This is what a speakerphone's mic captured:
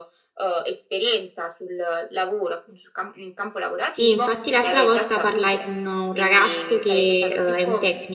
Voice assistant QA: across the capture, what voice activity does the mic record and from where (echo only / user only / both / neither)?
both